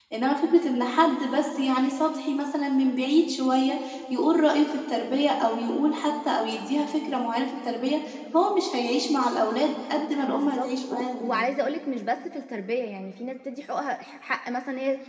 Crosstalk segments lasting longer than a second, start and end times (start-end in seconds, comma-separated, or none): 10.2-11.5